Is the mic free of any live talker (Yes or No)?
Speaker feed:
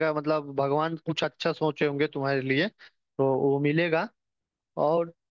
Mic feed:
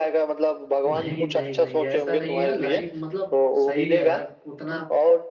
No